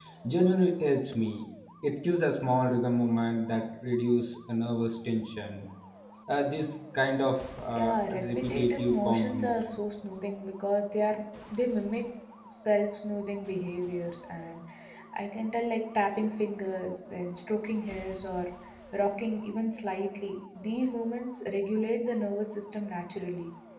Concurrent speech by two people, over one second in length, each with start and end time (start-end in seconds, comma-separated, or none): 7.7-9.6